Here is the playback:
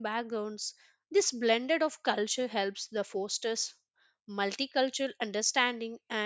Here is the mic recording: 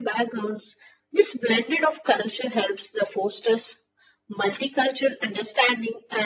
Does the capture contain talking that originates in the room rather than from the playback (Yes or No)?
No